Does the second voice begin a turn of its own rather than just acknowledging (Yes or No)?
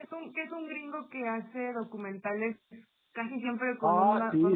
Yes